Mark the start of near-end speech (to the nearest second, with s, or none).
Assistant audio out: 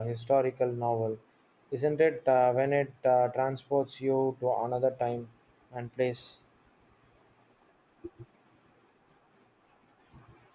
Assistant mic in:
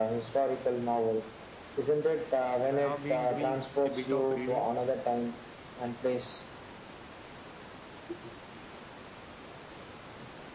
3 s